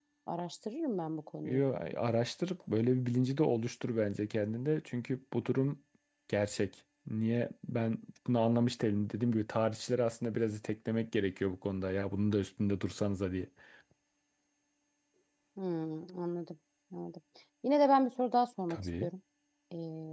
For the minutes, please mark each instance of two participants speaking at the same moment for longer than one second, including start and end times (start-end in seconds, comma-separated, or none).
none